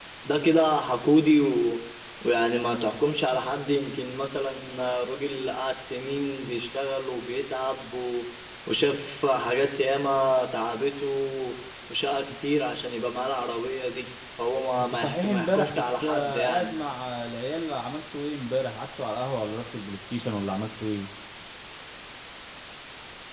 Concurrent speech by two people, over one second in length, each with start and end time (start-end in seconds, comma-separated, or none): 14.9-16.8